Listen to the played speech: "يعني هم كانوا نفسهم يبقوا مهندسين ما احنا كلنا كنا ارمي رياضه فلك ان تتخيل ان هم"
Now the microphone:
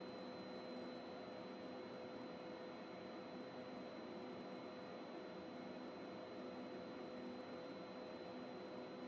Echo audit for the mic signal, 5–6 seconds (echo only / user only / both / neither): neither